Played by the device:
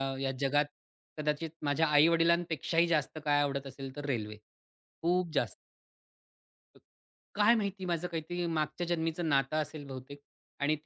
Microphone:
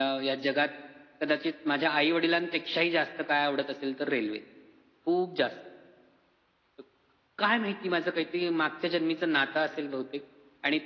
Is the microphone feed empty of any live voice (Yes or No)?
Yes